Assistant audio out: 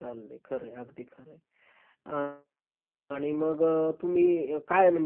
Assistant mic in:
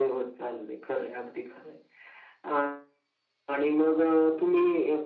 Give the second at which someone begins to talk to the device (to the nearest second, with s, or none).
none